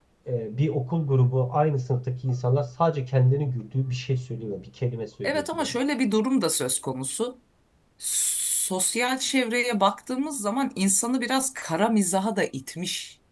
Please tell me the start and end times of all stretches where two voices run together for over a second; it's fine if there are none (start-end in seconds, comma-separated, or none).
none